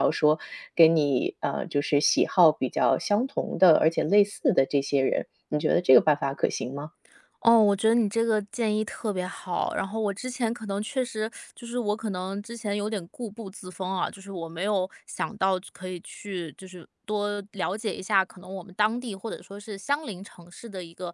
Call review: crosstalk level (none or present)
none